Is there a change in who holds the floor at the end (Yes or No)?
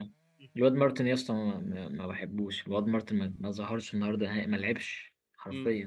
Yes